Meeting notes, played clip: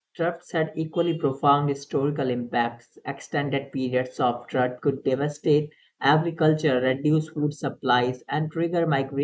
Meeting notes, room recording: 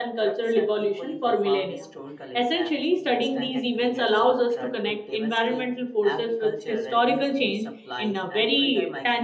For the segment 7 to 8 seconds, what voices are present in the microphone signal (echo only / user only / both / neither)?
both